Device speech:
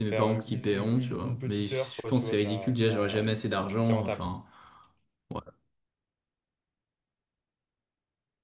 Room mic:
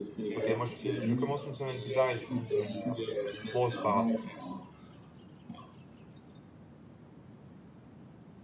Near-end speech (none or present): present